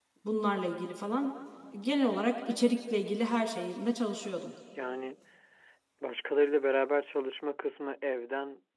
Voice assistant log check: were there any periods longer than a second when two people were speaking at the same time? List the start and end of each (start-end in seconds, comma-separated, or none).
none